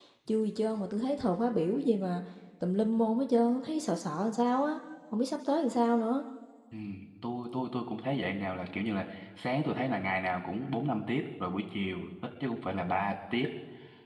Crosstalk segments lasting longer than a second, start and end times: none

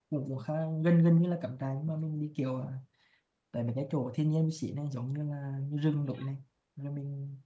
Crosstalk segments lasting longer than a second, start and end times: none

